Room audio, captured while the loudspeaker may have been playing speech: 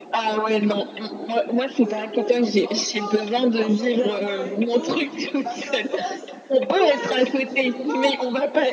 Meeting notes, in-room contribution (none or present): present